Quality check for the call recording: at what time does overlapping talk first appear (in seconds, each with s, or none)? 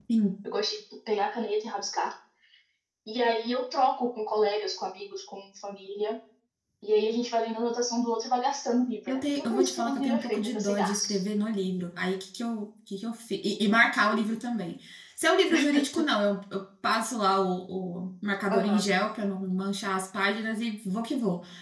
9.1 s